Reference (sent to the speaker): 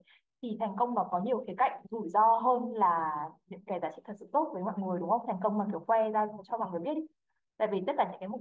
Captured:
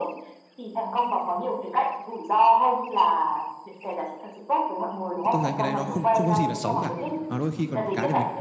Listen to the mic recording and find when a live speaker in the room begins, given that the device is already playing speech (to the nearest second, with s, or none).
5 s